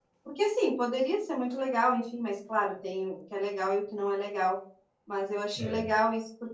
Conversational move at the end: listening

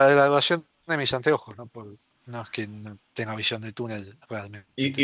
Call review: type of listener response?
taking over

